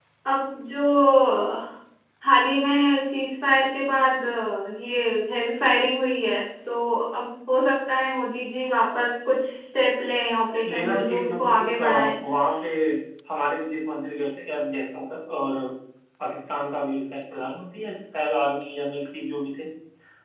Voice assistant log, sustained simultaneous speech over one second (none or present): present